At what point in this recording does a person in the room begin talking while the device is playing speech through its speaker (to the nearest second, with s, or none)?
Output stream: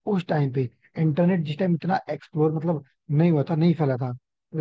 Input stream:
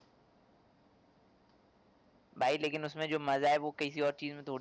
2 s